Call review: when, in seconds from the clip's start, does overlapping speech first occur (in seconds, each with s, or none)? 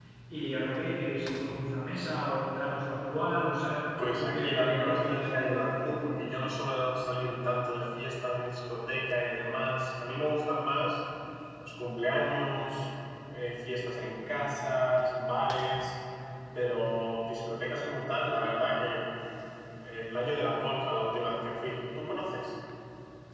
4.2 s